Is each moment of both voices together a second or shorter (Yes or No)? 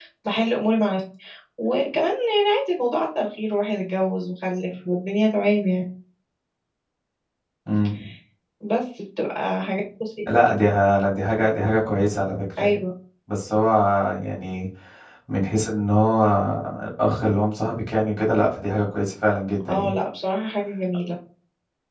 Yes